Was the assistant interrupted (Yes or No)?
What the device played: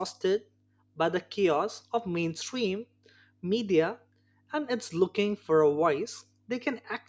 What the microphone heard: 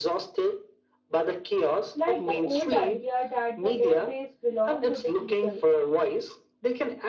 Yes